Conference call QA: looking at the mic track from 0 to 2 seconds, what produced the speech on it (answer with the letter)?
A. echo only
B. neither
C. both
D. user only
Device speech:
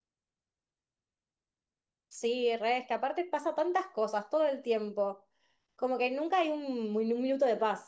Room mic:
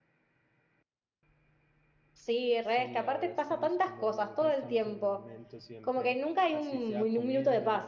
B